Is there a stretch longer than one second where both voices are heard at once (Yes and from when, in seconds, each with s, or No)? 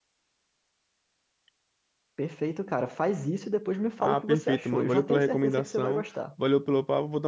Yes, from 4.0 s